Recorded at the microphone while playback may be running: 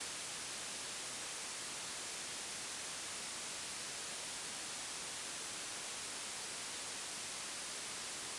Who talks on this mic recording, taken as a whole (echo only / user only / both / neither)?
neither